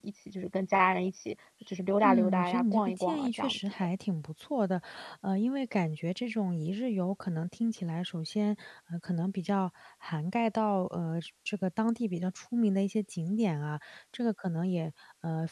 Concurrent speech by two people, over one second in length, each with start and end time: 2.0-3.9

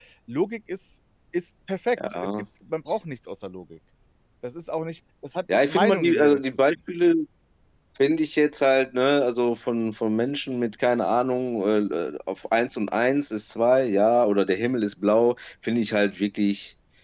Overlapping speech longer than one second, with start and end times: 5.5-6.8

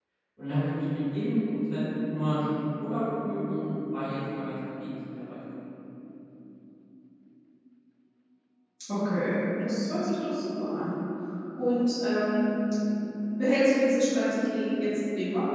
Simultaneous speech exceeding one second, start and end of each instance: none

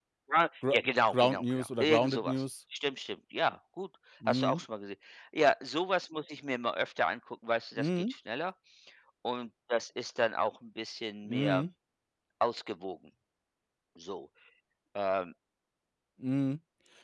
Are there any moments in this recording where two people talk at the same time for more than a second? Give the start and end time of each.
1.1-2.4

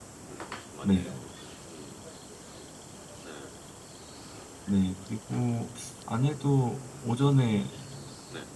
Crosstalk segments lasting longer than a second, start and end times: none

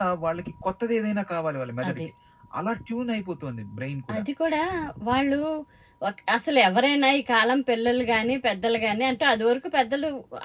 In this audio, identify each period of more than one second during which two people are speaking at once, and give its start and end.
none

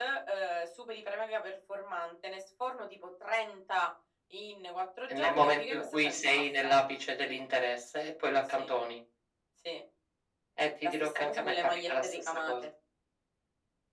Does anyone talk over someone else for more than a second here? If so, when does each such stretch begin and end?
5.1-6.7, 10.8-12.5

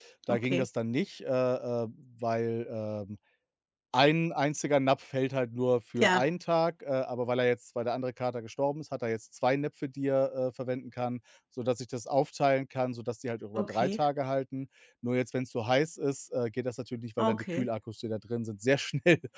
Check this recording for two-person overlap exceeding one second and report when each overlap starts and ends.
none

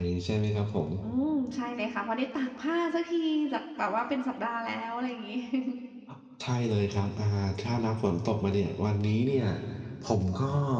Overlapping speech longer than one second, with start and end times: none

